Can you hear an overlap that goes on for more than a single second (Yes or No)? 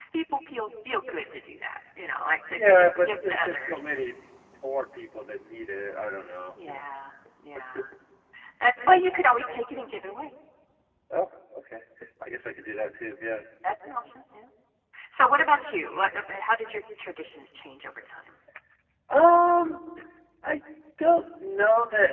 Yes